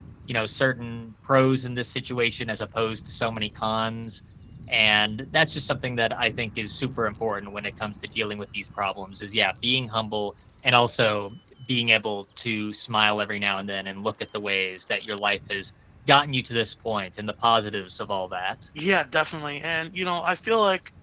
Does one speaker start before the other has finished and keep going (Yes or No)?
No